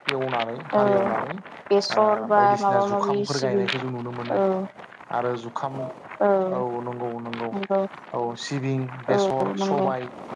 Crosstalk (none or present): present